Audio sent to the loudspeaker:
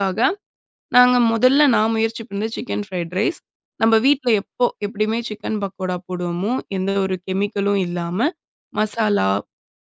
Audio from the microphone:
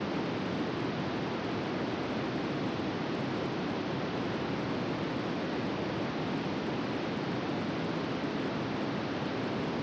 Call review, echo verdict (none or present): none